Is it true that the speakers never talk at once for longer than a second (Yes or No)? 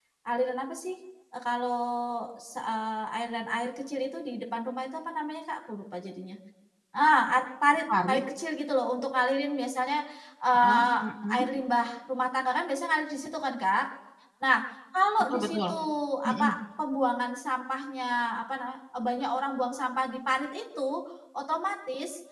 Yes